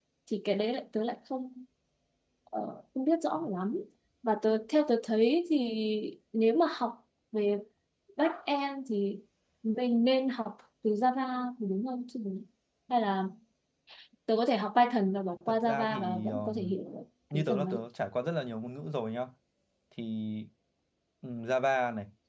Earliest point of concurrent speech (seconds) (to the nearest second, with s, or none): 15 s